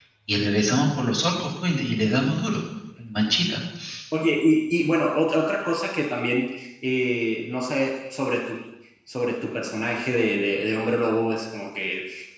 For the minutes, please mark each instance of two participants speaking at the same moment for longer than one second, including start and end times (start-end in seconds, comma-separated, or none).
none